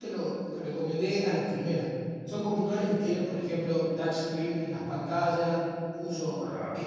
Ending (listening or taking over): listening